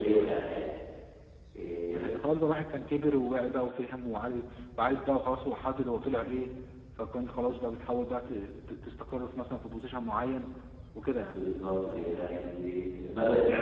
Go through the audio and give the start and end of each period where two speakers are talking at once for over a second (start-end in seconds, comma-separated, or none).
none